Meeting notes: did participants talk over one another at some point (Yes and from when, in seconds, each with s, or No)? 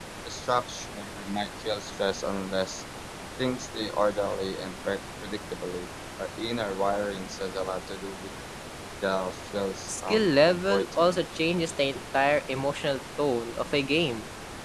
Yes, from 9.9 s